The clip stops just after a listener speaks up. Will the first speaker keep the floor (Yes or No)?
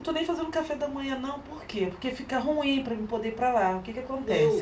No